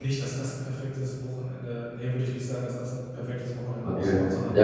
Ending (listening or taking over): taking over